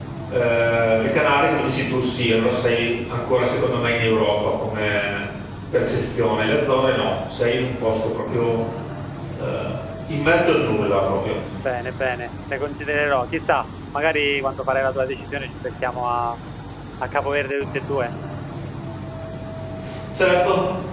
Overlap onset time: none

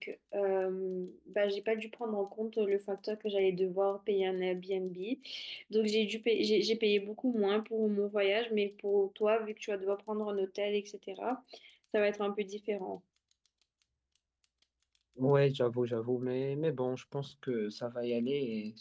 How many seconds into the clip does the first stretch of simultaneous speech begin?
none

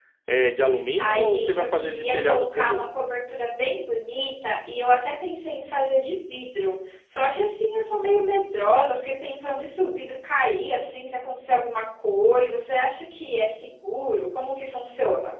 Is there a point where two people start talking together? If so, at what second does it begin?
1 s

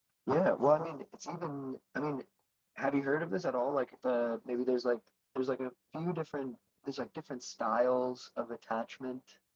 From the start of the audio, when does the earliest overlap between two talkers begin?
none

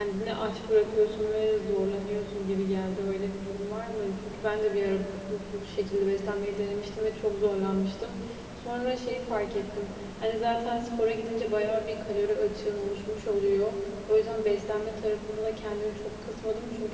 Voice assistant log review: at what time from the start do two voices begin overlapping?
none

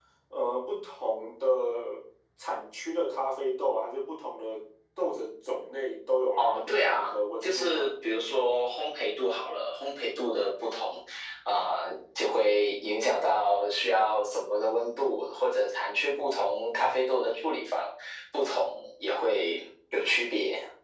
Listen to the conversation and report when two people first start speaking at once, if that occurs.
6 s

